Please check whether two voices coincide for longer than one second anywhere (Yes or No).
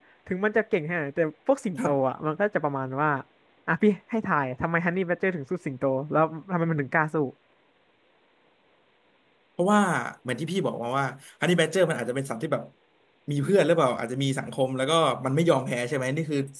No